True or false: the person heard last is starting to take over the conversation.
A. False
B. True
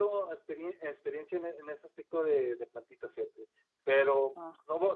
A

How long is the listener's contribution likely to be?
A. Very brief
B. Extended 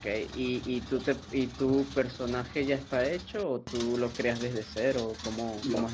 B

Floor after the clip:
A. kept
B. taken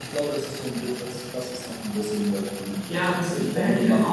B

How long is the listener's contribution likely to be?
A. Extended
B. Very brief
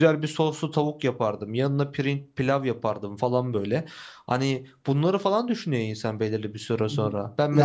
B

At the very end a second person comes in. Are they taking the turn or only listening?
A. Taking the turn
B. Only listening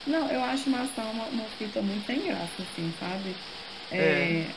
B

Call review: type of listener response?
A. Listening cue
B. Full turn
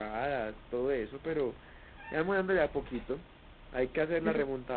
A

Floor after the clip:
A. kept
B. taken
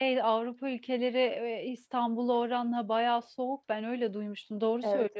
B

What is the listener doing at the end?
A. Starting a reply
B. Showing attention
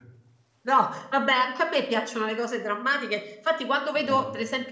B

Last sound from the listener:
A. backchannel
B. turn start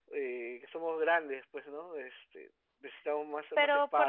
B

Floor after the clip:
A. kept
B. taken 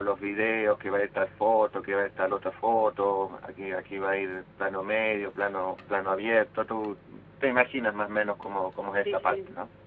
B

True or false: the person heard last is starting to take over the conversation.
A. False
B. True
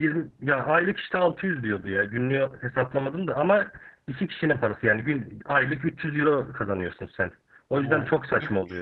B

